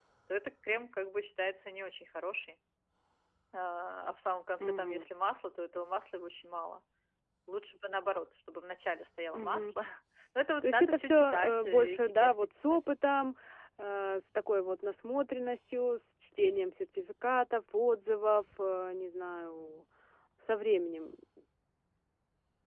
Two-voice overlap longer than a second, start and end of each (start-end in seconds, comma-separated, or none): 10.6-12.8